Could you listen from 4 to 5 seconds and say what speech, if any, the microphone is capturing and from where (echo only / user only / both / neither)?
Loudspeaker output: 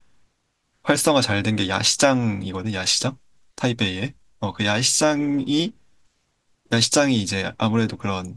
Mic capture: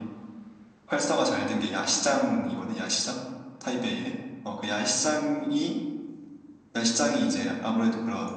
echo only